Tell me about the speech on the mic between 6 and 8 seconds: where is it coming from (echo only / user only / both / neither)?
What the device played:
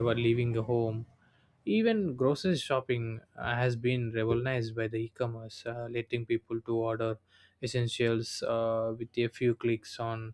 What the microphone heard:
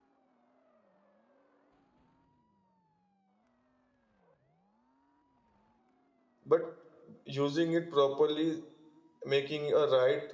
user only